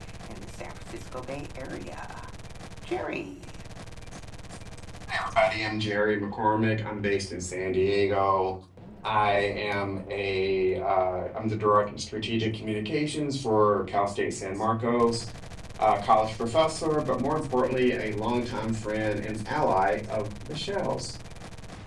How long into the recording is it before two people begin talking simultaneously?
none

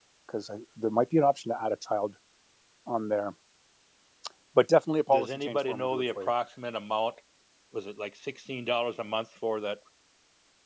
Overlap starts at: 5.1 s

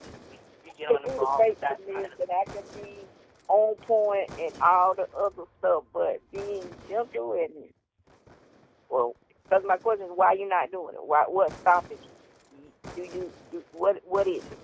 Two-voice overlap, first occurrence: 0.9 s

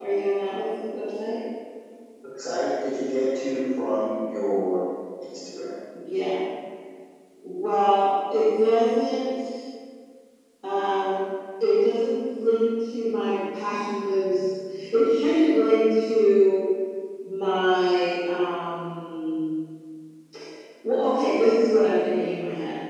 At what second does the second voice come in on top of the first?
none

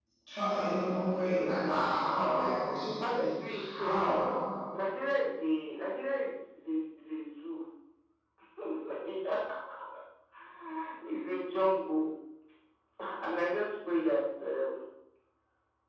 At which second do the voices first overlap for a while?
3.0 s

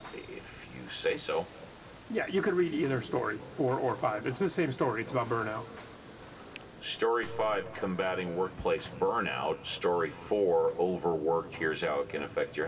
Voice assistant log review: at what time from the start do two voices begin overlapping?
none

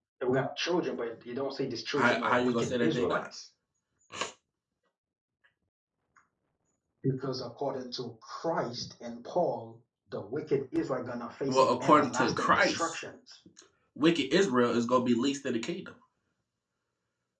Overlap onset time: 2.0 s

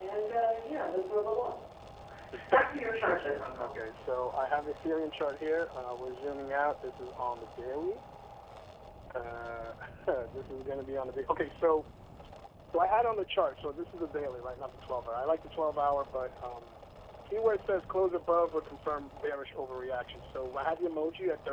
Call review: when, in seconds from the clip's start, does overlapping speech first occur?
2.5 s

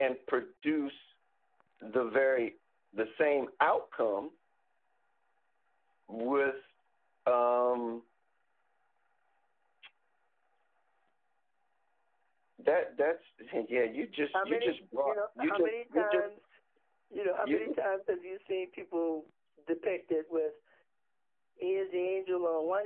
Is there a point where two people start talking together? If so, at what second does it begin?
14.3 s

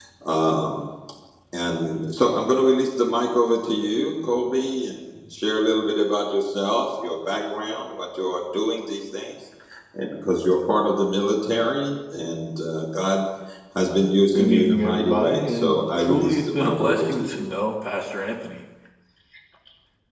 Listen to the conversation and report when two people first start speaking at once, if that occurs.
14.4 s

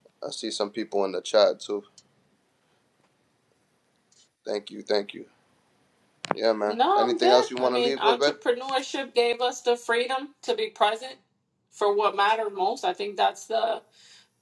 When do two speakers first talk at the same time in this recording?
6.7 s

